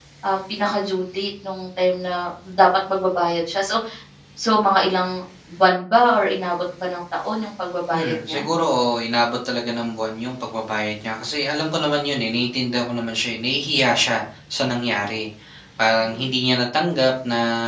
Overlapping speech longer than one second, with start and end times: none

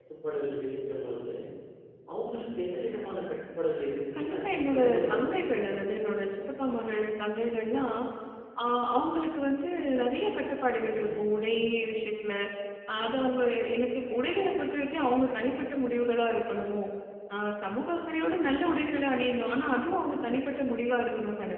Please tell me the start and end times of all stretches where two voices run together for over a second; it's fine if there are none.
4.2-5.5

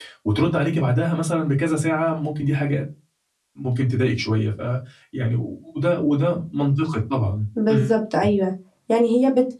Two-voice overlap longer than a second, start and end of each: none

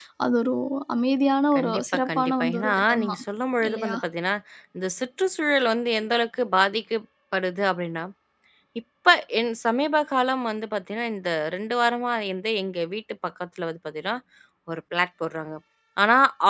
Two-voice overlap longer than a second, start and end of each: 1.5-3.2

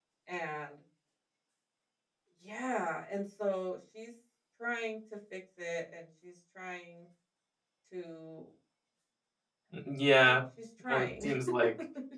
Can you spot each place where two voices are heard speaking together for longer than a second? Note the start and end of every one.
none

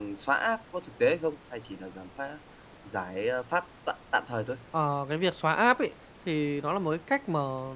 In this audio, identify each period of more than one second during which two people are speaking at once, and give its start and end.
none

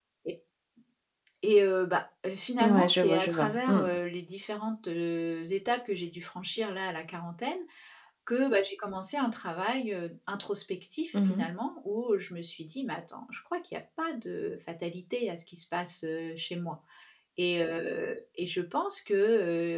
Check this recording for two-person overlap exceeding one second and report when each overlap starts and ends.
2.6-3.9

